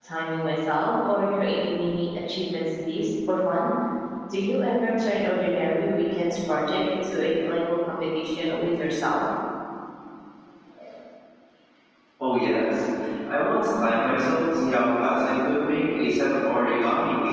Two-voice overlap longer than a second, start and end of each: none

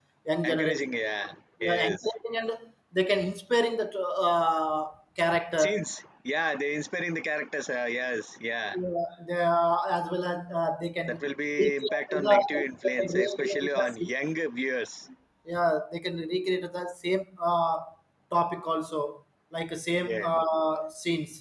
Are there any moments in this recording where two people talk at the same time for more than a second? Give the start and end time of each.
11.6-14.1

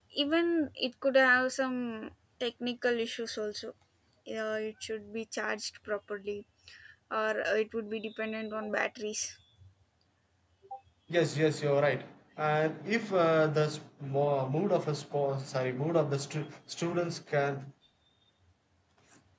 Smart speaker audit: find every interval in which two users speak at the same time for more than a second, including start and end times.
none

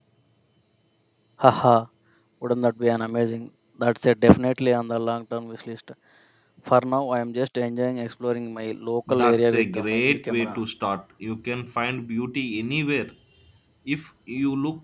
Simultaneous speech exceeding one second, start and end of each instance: 9.1-10.6

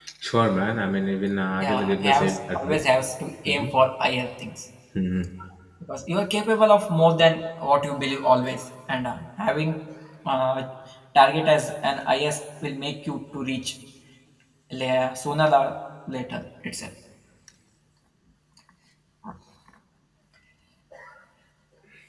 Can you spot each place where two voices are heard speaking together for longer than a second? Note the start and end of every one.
1.6-2.8

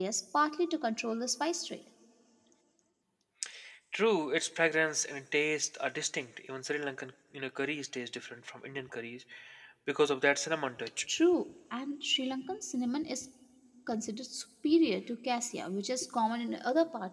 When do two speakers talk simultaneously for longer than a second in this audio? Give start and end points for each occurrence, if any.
none

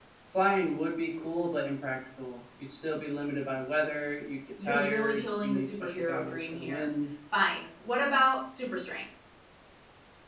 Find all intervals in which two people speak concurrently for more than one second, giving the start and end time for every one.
4.6-6.9

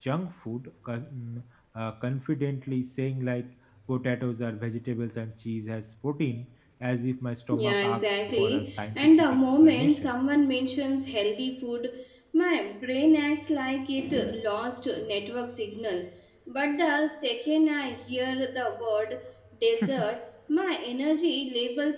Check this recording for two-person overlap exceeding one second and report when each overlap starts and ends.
7.5-10.1

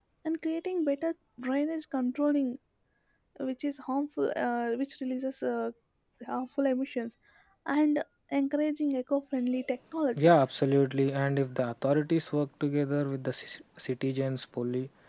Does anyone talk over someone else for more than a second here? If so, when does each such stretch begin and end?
none

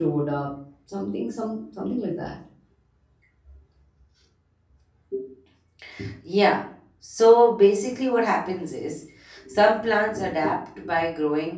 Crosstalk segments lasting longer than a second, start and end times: none

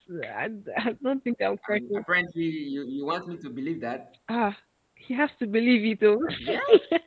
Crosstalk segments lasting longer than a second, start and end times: none

